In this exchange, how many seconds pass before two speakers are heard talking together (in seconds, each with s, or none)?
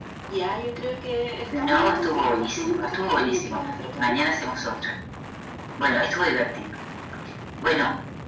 1.5 s